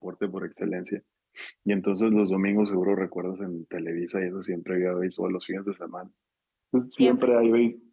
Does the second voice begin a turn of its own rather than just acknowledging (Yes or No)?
No